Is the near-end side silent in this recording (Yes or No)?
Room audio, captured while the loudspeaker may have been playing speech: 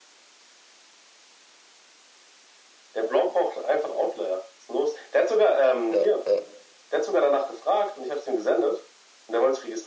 No